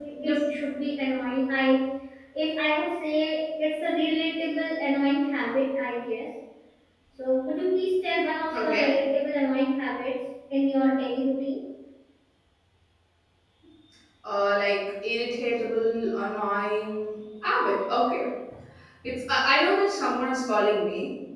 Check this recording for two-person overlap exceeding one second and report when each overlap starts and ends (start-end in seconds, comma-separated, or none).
none